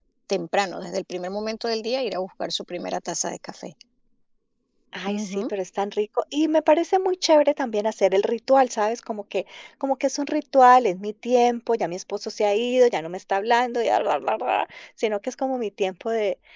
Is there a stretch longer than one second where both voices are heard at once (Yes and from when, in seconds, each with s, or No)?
No